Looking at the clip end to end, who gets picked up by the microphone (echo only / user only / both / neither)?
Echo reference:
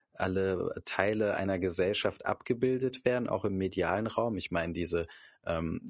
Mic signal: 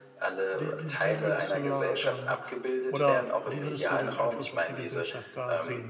both